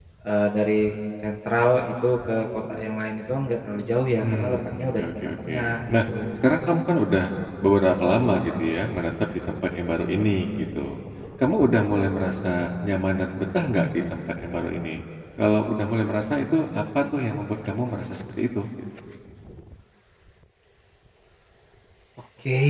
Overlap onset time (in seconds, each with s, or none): 4.2 s